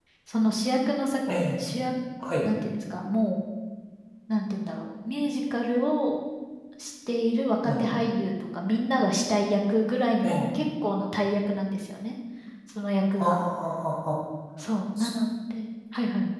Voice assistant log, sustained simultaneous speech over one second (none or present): none